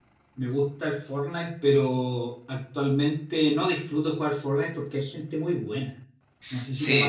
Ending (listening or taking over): taking over